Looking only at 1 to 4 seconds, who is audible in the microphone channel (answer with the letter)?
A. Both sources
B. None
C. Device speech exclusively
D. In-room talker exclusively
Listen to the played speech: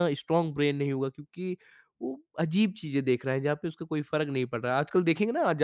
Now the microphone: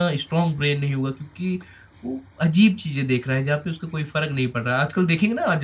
C